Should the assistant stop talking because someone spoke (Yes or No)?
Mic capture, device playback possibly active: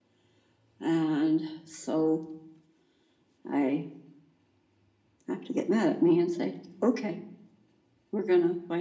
No